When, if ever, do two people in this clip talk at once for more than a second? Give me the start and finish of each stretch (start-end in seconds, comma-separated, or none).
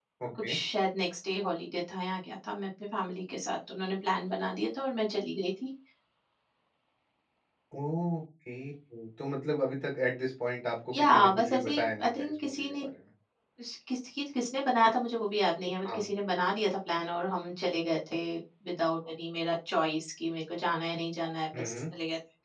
11.0-12.8